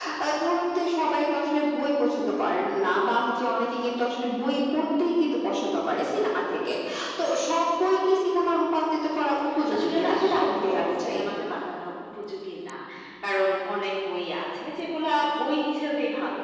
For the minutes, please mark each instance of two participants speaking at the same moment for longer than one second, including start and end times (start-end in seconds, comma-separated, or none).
9.7-11.2